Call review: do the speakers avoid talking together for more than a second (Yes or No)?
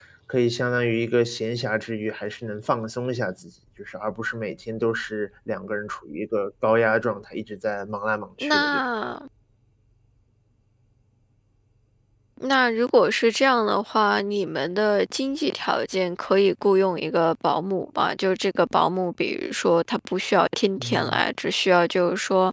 Yes